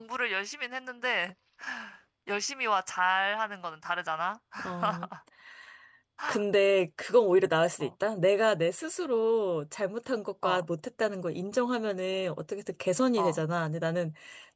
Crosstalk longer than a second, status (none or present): none